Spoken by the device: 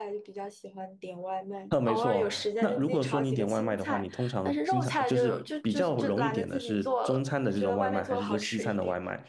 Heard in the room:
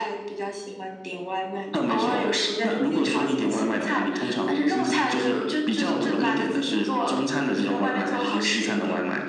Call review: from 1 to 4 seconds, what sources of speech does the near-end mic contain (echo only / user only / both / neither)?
echo only